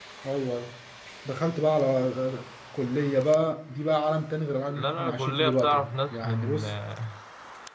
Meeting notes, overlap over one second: present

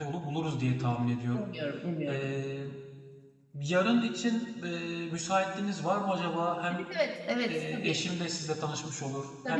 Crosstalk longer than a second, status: none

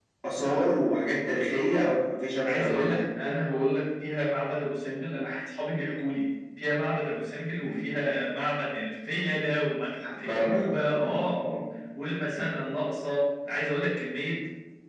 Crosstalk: present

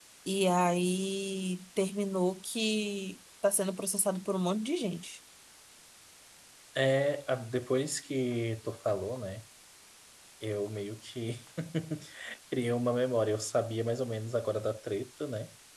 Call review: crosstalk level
none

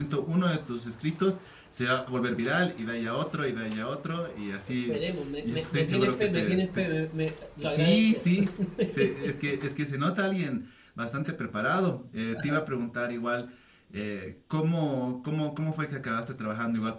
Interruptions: present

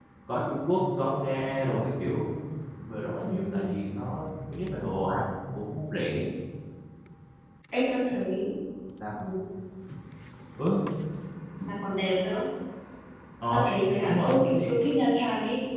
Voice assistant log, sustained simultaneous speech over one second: none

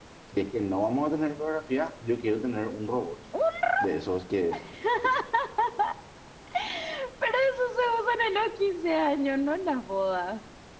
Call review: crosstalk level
none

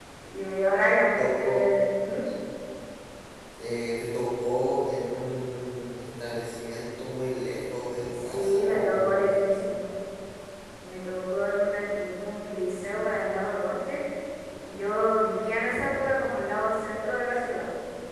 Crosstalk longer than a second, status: present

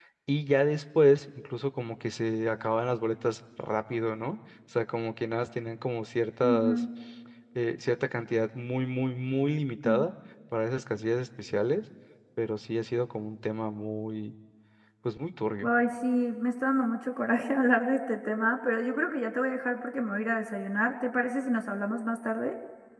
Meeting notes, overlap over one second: none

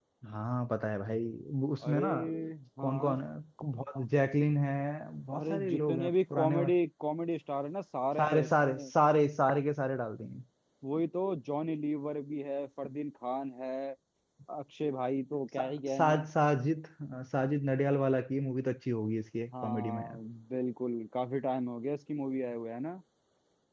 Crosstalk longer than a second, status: present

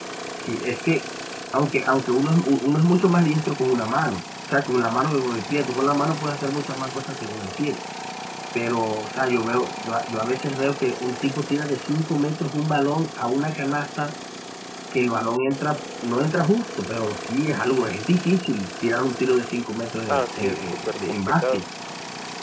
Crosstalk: present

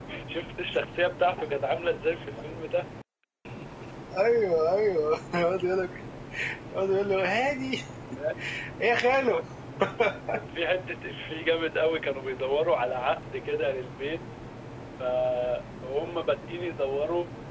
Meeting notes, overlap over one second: none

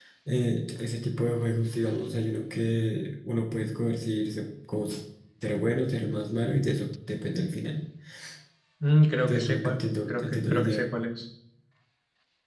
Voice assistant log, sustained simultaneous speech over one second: present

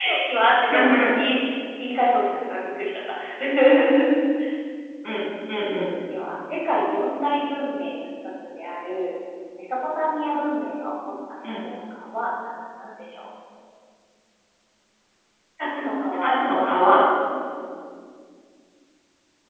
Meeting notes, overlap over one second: none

